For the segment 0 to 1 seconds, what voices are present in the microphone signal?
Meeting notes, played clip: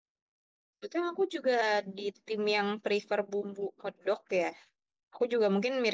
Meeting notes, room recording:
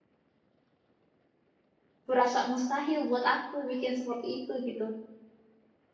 neither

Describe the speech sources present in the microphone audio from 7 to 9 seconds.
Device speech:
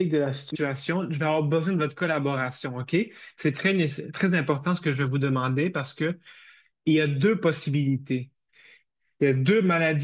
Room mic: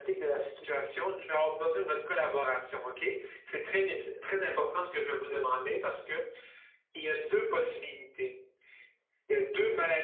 echo only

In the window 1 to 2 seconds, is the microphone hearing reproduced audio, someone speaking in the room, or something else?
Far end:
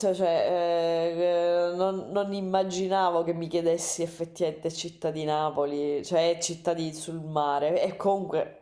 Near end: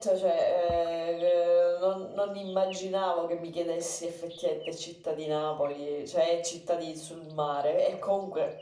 echo only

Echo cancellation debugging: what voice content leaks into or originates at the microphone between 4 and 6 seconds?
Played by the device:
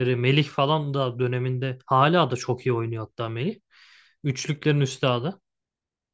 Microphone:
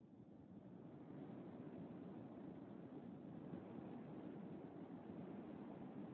neither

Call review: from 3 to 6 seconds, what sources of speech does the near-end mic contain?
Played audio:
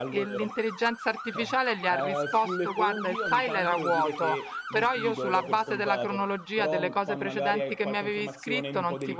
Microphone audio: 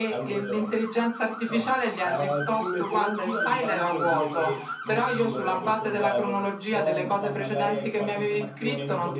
echo only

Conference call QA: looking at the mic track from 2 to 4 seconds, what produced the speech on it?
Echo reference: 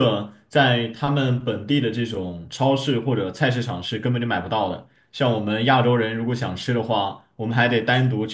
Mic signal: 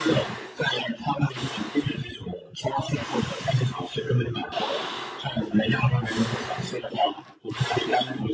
echo only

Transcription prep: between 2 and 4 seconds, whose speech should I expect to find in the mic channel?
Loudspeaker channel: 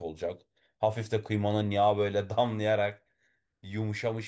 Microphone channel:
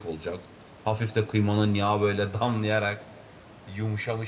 echo only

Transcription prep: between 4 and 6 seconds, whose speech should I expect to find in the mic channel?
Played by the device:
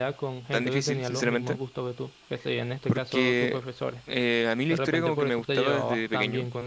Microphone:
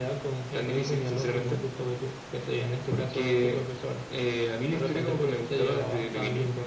echo only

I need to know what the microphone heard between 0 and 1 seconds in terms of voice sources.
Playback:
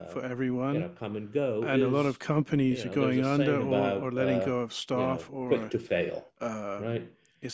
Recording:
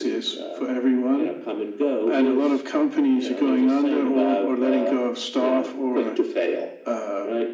echo only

